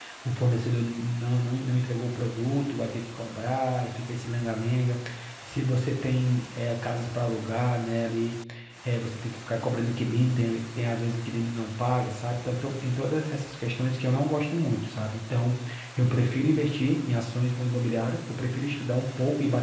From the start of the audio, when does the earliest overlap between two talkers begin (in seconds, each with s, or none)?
none